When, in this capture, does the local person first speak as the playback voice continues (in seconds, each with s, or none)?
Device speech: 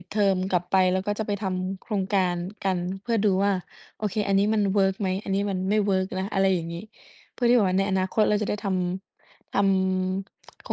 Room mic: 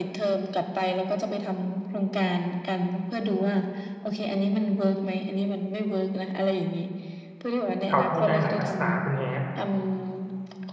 7.9 s